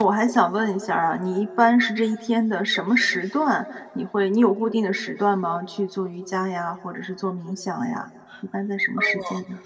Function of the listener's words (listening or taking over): taking over